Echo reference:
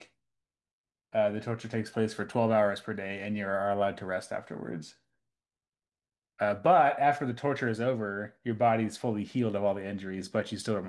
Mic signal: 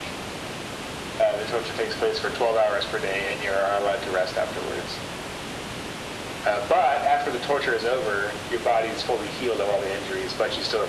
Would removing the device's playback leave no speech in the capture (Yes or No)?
Yes